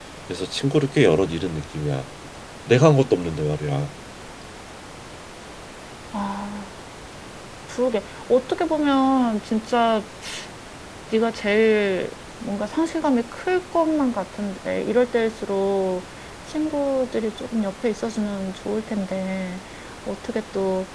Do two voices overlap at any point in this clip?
No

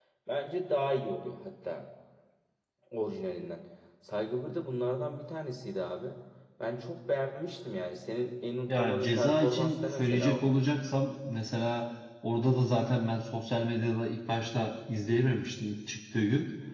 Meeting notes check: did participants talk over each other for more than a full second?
Yes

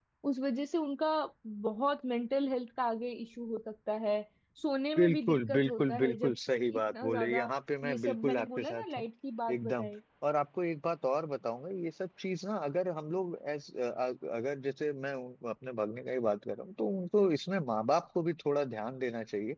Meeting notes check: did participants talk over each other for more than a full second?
Yes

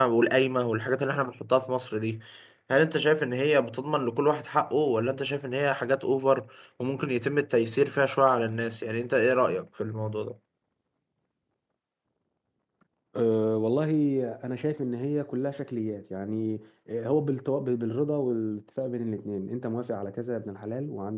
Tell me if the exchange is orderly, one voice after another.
Yes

